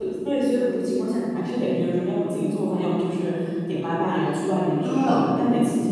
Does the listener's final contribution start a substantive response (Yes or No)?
No